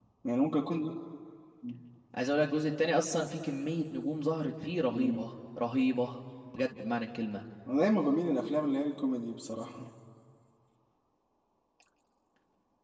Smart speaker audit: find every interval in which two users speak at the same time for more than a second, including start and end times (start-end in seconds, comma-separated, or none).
none